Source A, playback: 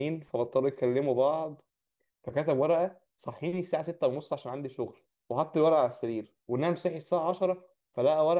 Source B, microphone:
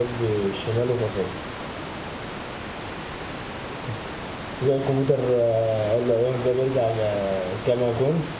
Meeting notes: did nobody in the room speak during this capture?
No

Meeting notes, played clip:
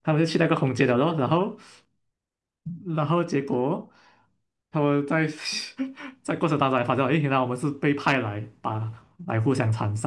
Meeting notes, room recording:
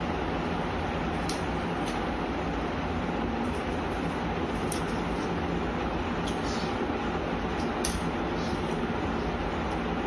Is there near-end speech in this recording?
No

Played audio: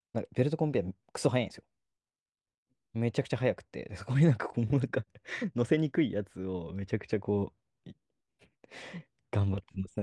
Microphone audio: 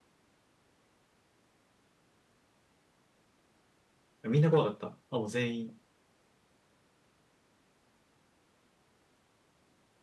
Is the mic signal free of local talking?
No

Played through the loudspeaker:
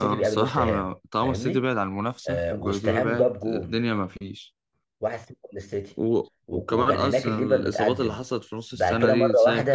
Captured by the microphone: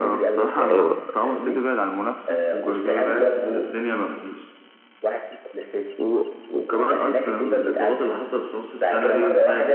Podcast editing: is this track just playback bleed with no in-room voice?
No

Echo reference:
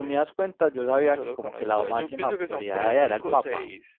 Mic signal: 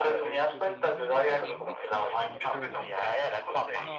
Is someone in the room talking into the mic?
Yes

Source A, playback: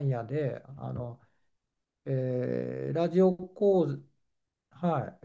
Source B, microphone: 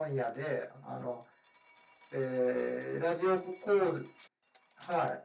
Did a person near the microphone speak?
No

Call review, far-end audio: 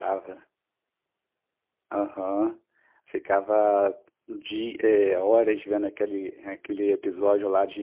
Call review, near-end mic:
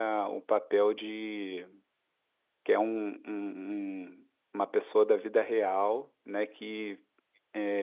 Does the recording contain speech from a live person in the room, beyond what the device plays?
Yes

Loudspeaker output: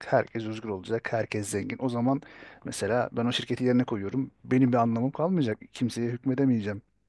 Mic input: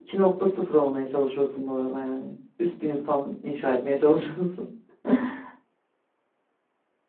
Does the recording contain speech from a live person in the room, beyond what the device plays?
Yes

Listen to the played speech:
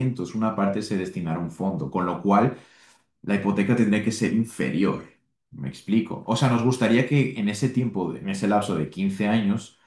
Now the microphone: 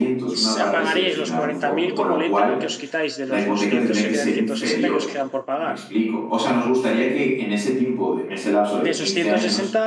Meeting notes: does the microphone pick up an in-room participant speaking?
Yes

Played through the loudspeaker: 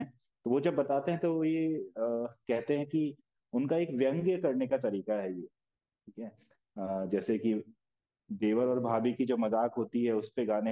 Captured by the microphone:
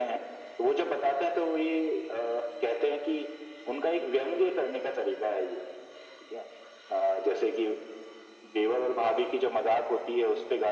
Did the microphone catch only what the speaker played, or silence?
Yes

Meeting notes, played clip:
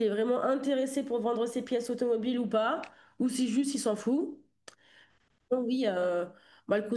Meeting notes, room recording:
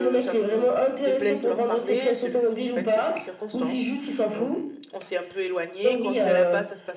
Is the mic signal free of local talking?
No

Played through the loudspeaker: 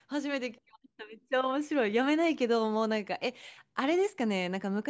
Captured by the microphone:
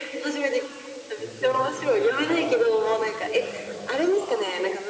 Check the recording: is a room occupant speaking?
Yes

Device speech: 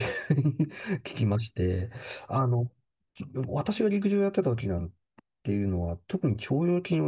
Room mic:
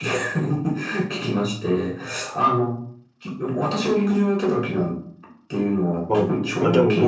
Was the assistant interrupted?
Yes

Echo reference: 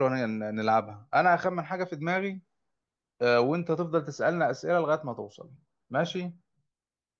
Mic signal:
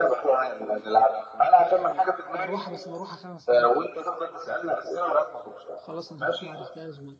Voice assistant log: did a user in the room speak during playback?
Yes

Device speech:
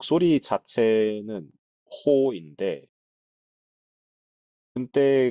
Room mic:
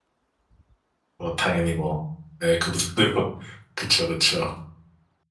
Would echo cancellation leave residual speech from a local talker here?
Yes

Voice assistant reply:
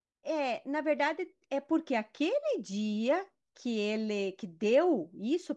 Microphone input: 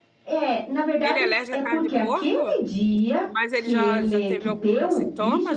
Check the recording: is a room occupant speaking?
Yes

